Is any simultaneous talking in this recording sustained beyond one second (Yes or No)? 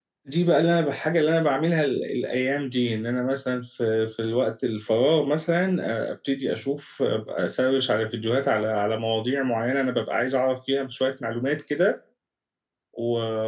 No